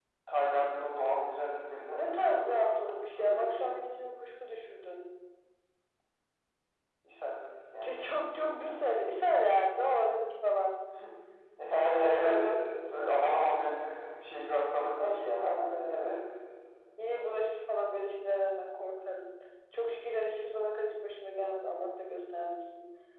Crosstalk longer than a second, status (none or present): present